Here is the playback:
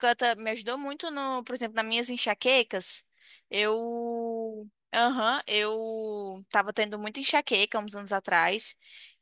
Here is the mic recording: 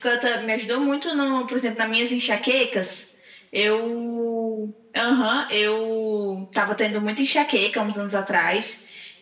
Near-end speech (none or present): none